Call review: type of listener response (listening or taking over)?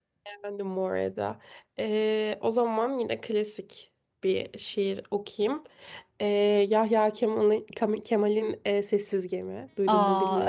taking over